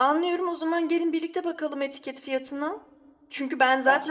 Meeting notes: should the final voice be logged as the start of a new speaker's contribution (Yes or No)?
No